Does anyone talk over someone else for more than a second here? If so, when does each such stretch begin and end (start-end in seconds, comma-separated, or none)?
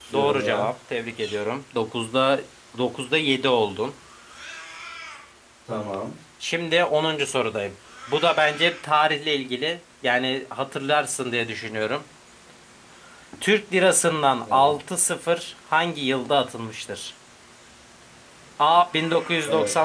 none